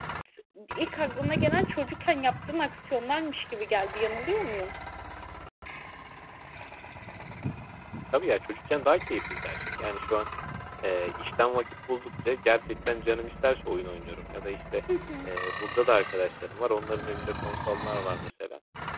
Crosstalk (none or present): none